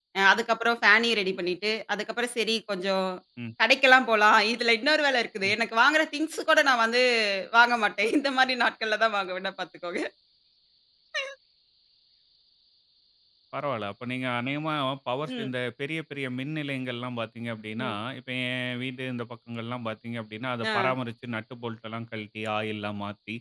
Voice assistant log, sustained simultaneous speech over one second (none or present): none